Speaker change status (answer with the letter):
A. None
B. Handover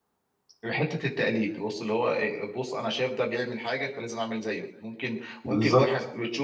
A